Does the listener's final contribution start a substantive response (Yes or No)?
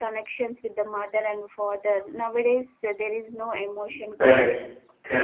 Yes